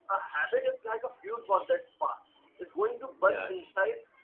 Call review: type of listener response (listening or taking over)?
listening